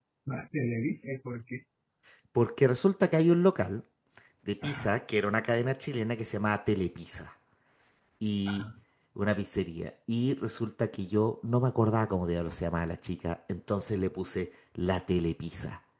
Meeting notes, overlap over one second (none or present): none